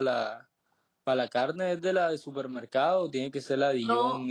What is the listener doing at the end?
listening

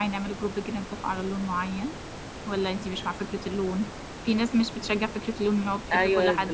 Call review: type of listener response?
taking over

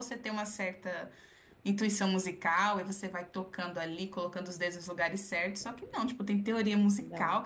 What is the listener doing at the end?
listening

